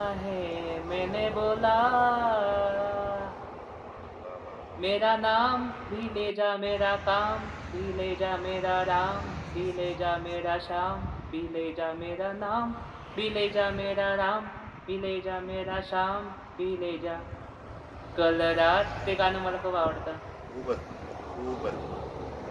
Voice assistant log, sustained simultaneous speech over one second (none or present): none